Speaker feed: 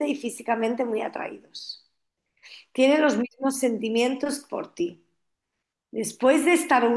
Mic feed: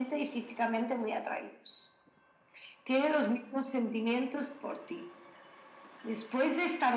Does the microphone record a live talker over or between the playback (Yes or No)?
No